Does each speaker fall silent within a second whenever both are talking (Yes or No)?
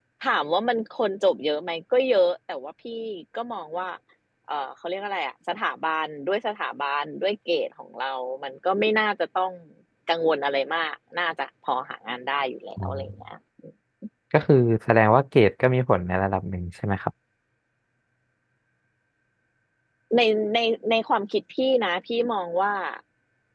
Yes